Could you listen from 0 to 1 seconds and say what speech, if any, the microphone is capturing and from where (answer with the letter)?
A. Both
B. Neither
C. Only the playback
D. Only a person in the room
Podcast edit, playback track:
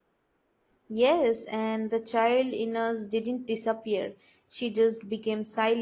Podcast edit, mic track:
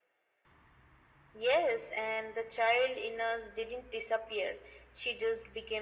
B